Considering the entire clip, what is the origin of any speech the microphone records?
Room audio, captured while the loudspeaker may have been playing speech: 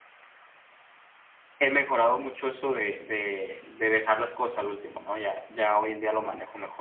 user only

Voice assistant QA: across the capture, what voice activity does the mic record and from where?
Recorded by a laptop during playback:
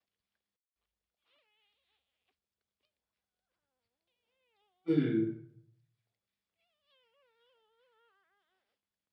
user only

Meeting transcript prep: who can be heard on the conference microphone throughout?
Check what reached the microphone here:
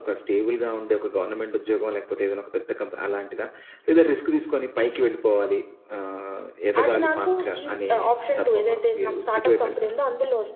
both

